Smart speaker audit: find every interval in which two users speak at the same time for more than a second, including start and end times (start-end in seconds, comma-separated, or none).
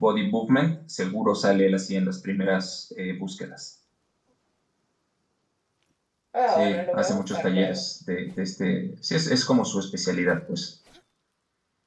6.5-7.8